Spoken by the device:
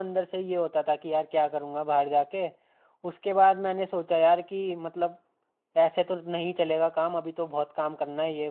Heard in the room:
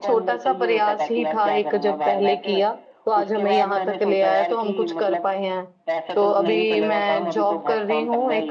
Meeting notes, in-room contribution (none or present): present